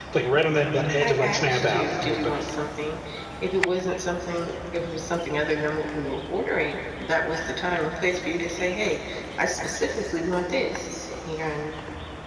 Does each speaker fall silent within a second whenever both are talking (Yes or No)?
No